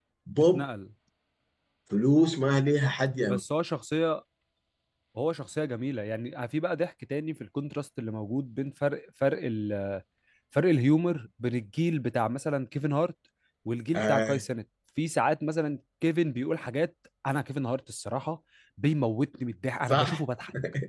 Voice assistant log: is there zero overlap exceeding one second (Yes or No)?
Yes